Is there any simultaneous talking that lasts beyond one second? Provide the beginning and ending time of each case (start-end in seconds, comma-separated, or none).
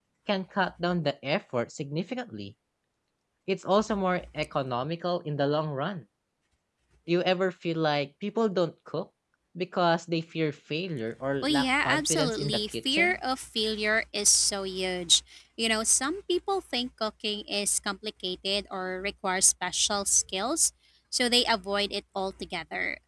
11.4-13.2